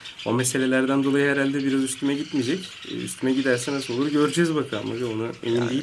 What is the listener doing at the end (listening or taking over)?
taking over